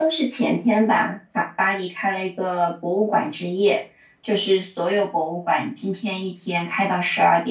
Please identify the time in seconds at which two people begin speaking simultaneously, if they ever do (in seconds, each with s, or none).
none